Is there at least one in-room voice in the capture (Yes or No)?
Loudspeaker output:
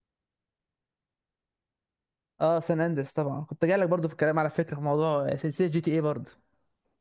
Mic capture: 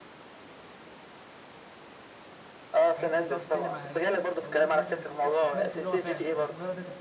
Yes